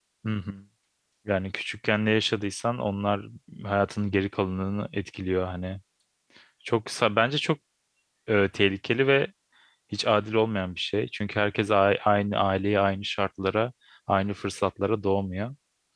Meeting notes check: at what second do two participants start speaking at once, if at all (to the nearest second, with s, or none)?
none